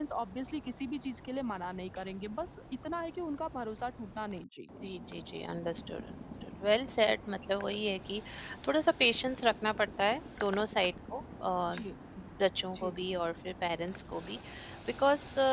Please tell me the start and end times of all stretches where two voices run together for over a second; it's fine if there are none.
none

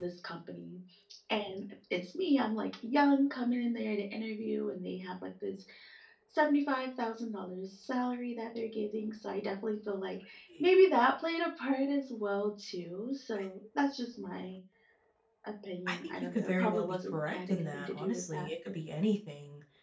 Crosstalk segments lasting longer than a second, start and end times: 15.9-18.7

